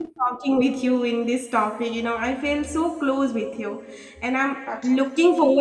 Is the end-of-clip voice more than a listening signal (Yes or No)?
No